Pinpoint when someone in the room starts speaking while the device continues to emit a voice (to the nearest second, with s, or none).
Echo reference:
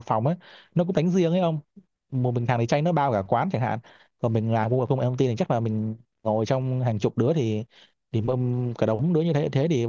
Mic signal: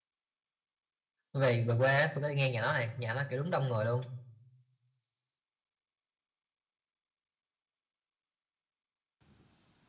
1 s